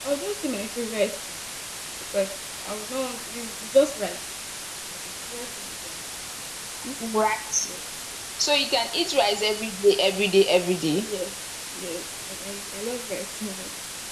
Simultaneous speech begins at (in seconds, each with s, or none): none